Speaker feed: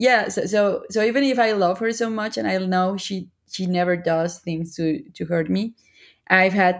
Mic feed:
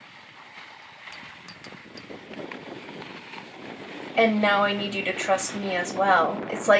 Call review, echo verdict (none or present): none